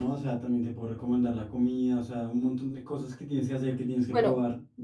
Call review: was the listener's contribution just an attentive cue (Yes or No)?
No